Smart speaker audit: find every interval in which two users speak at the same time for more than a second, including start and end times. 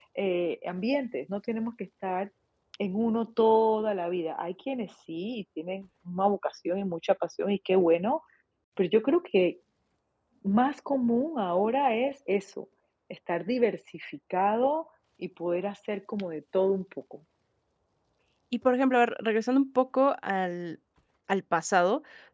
none

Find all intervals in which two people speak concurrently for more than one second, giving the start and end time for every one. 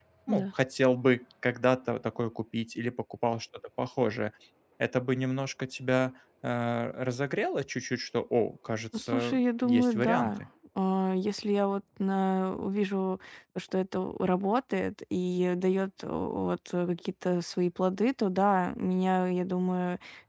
8.9-10.3

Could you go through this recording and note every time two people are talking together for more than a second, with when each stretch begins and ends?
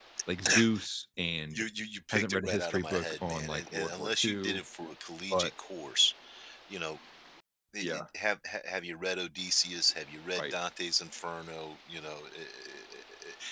2.1-4.6

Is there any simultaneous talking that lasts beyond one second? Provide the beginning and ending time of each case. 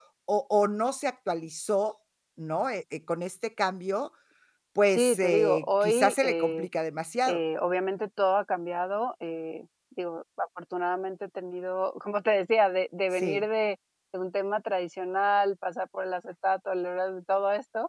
4.9-6.7

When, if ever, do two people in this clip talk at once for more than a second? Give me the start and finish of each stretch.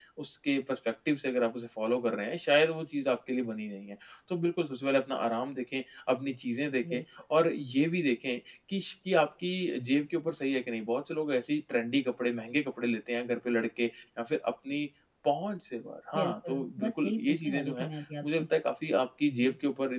16.1-17.9

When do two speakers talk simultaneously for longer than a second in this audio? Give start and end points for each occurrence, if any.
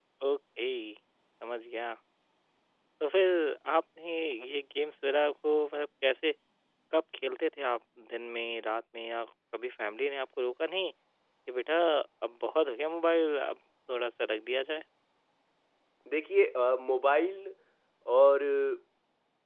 none

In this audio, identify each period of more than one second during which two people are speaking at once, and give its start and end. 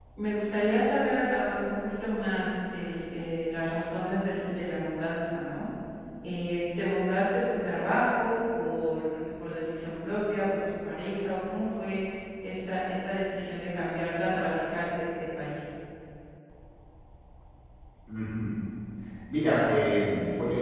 none

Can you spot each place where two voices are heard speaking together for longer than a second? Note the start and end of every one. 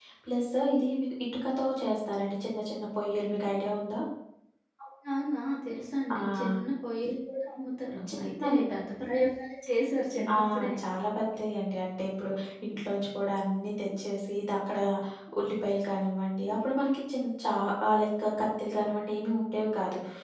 none

